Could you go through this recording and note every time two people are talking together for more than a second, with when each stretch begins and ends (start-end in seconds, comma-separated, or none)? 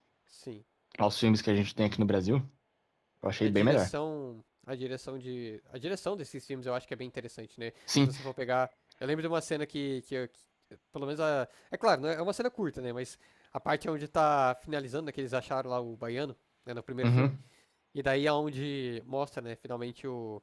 none